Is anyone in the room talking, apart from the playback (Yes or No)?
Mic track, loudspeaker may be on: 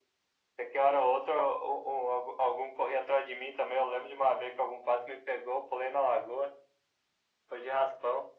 No